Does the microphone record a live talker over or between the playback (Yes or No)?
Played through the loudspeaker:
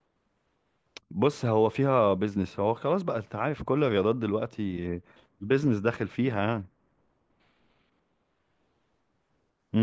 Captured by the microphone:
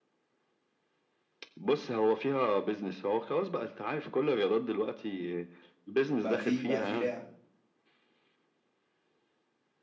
Yes